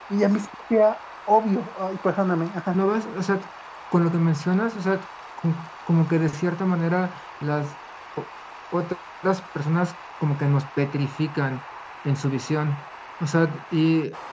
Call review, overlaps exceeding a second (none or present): none